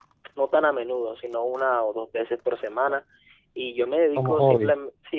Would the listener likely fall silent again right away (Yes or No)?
Yes